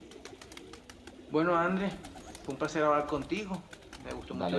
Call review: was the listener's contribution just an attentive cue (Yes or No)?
Yes